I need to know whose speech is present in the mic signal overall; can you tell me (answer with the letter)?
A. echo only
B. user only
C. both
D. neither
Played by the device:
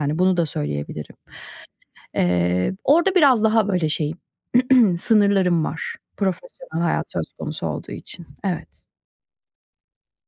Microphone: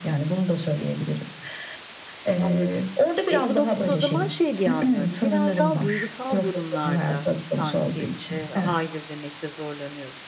C